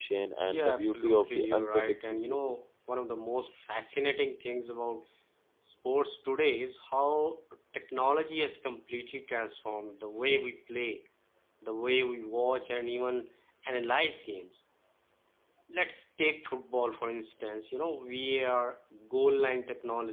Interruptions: present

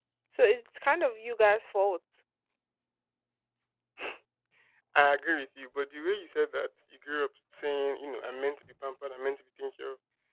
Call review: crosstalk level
none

